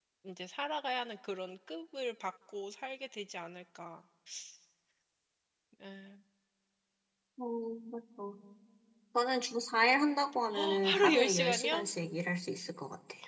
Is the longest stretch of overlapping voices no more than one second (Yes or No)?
No